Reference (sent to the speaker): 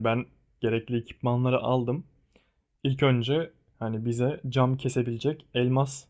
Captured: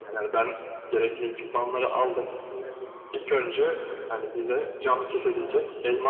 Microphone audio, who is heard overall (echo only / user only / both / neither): both